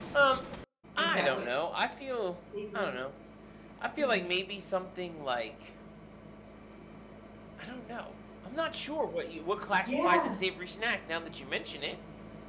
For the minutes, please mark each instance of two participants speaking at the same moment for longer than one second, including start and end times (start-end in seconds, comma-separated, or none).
none